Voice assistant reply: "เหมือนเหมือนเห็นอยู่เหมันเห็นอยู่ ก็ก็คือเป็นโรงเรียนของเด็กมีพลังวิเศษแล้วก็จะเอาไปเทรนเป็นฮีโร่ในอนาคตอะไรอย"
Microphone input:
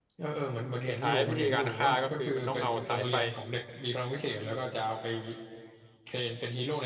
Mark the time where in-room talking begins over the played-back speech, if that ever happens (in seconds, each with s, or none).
0.9 s